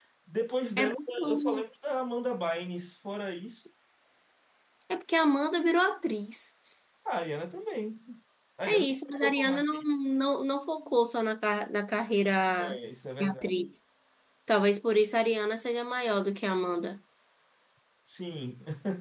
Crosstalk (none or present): present